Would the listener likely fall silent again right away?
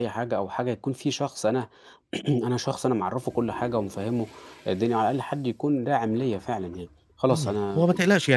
No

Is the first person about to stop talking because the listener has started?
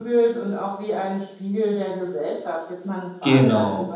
No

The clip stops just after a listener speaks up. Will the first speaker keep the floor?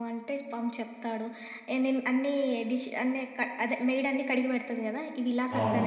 No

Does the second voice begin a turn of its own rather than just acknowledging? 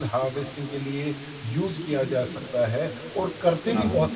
No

